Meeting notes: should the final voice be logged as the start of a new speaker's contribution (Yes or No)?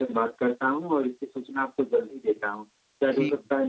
No